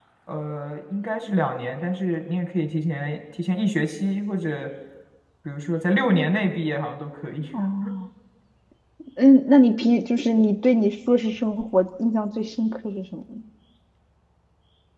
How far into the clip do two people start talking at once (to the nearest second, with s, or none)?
none